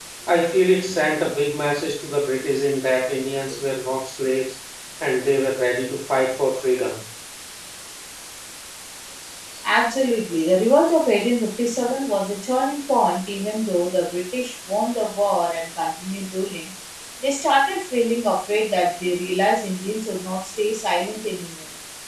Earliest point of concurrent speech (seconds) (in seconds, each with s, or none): none